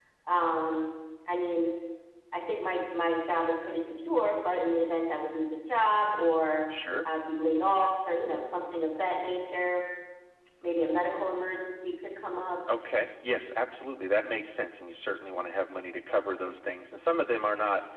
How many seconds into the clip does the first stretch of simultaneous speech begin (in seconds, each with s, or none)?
none